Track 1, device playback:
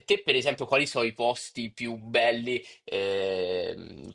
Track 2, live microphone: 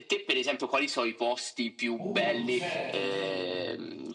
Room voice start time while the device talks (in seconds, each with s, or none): 2.0 s